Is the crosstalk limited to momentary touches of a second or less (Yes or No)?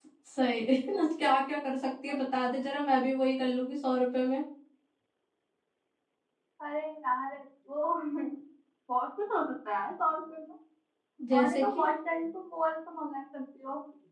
Yes